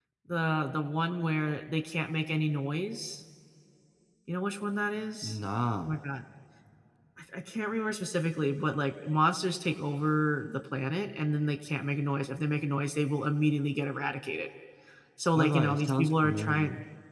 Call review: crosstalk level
present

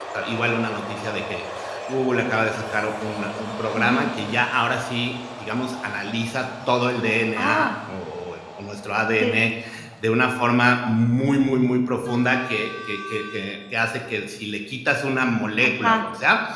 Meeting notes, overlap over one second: none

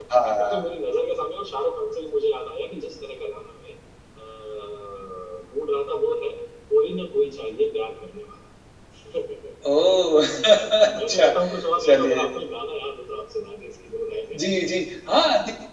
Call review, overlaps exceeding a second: none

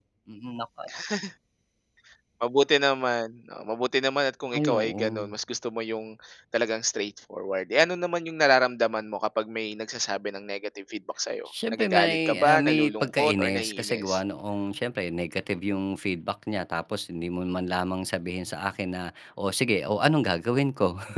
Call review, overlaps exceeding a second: present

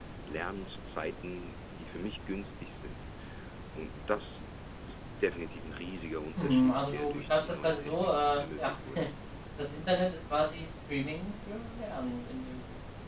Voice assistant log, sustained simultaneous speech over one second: present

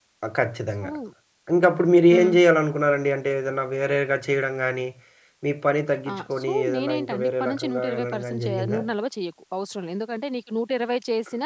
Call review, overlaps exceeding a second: present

